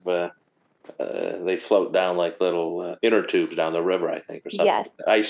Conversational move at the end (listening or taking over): listening